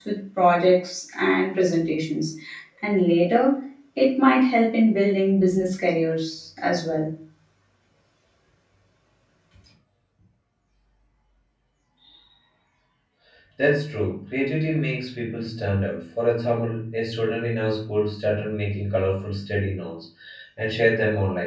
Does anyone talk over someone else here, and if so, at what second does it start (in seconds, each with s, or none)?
none